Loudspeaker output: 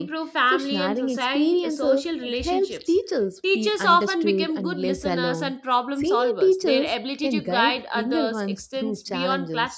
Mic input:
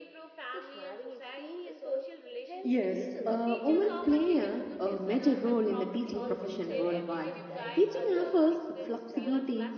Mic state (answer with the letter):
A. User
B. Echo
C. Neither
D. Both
D